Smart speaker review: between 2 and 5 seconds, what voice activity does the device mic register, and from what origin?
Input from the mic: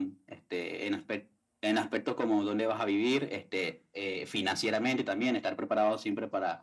echo only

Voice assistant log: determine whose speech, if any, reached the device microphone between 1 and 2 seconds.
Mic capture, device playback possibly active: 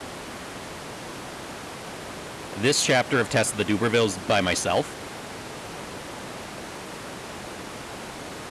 neither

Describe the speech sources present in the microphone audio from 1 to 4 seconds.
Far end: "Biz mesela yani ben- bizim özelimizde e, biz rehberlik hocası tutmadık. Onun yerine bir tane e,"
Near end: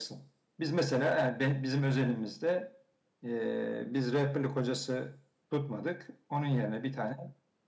echo only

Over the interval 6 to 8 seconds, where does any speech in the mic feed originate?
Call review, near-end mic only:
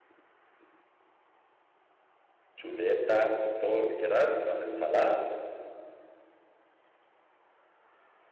neither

